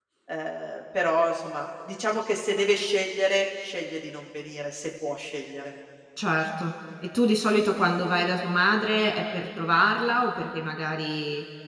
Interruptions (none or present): none